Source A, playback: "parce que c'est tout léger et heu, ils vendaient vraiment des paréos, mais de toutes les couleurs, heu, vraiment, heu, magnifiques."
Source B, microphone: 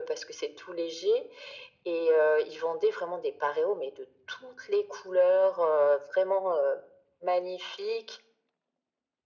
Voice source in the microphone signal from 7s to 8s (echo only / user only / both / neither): echo only